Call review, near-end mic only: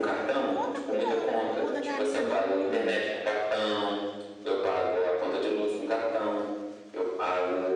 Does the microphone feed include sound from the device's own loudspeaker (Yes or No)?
Yes